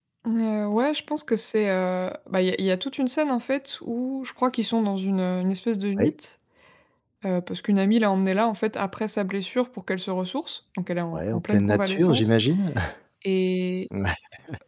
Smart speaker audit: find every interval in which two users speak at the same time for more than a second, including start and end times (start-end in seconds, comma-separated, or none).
11.1-12.3